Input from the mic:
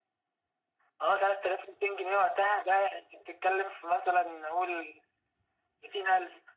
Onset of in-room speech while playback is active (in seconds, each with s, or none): none